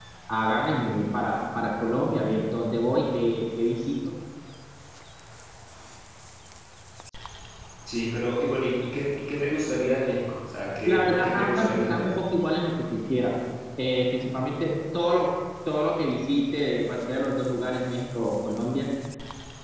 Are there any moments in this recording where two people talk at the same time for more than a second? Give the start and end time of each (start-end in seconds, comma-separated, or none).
10.8-12.1